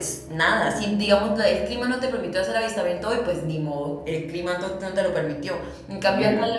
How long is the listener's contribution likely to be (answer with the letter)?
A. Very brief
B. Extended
A